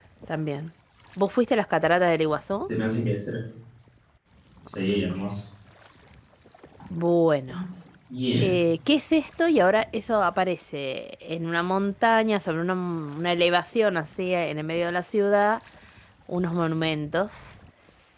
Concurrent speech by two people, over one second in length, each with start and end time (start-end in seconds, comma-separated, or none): none